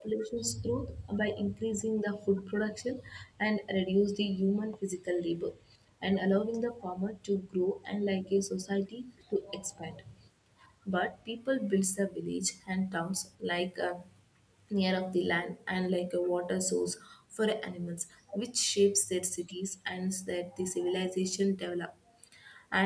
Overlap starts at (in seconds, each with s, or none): none